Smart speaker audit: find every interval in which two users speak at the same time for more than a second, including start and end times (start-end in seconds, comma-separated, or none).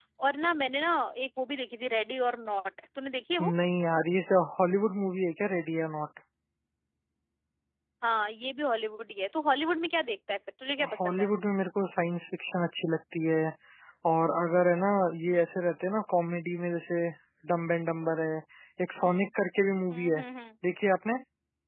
none